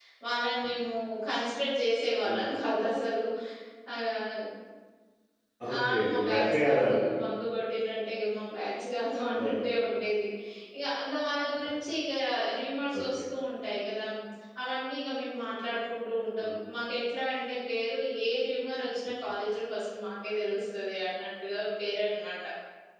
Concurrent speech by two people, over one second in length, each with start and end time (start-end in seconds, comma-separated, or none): 5.8-7.0